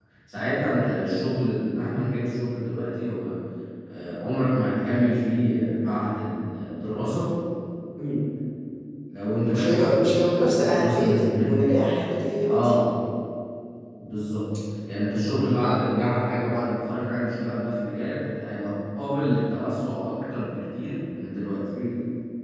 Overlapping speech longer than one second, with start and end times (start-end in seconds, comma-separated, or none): 9.5-11.8